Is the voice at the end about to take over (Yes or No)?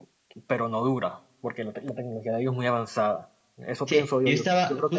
Yes